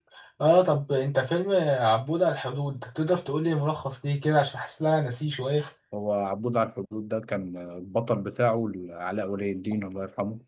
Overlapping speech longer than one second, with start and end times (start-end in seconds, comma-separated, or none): none